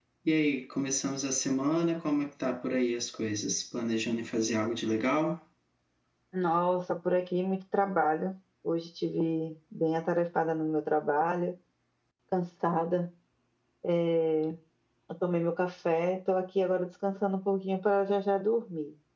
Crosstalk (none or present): none